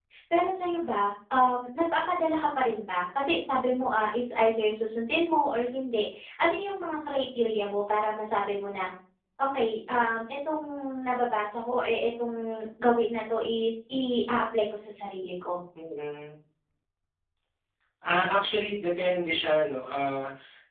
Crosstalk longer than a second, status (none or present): none